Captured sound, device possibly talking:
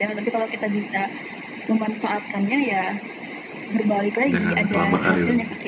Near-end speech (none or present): present